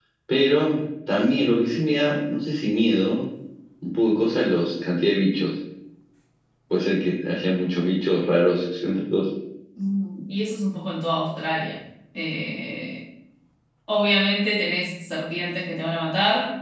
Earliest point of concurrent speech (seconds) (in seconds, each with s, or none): none